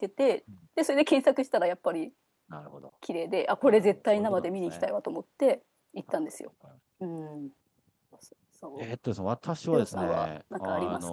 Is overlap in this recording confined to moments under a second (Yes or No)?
No